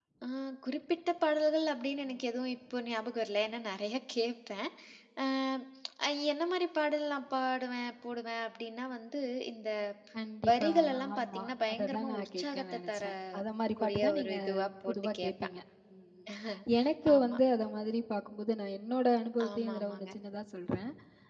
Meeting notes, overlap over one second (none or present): present